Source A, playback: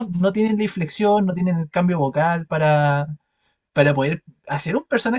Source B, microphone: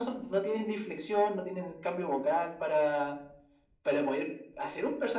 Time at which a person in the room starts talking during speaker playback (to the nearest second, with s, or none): none